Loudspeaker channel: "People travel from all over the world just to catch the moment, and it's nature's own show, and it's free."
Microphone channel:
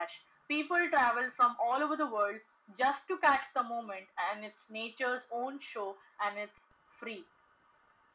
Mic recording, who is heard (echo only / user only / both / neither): echo only